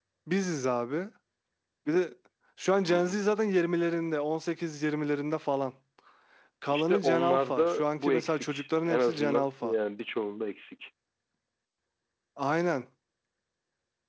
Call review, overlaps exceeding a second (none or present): present